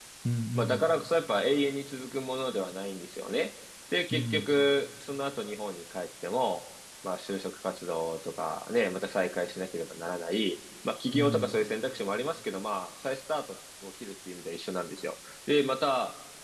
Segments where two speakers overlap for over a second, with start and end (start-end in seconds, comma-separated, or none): none